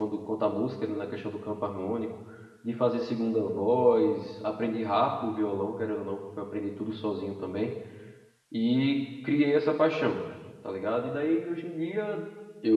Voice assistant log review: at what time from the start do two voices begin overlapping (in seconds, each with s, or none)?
none